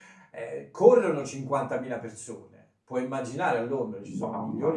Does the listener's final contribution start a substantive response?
No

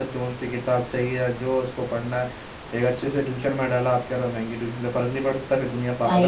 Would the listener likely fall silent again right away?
No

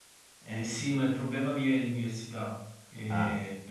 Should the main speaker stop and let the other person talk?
No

